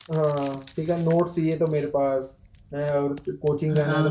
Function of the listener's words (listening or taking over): listening